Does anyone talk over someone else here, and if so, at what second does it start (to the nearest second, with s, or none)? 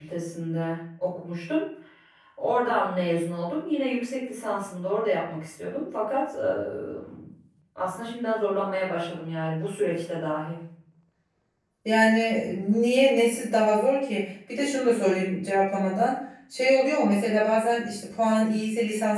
none